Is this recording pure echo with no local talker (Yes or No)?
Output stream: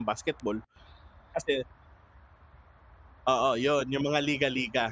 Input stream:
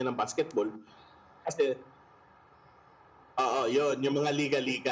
Yes